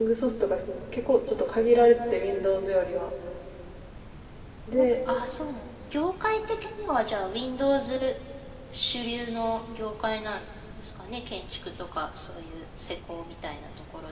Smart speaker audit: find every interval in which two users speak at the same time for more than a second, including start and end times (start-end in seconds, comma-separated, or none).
none